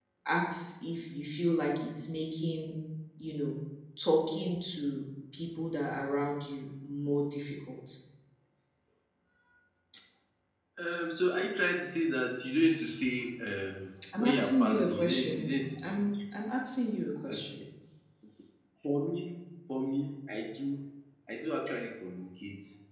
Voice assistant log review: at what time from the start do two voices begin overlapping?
14 s

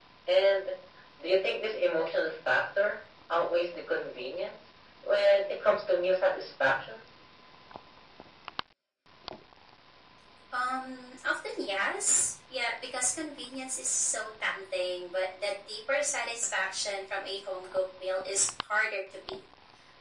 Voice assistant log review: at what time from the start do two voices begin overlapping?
none

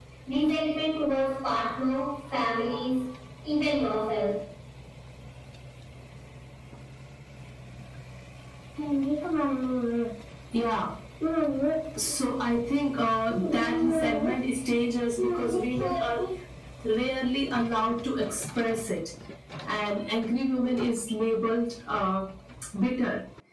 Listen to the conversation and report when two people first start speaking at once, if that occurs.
none

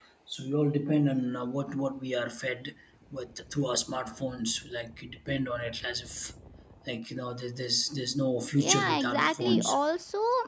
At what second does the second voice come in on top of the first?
9 s

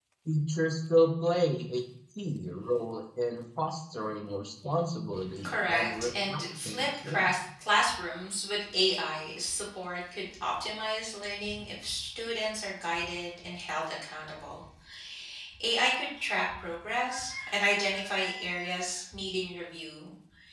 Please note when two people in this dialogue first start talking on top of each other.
5 s

